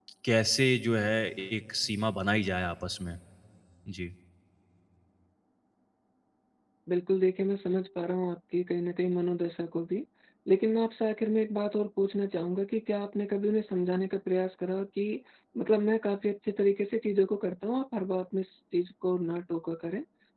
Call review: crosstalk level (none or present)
none